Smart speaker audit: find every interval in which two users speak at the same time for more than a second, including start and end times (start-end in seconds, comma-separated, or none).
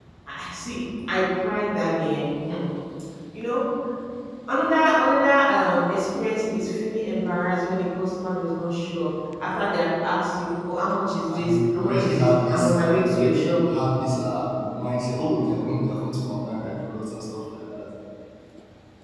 11.3-13.7